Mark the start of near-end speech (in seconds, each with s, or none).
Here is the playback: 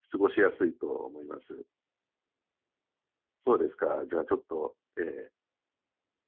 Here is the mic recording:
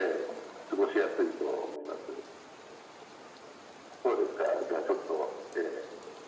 none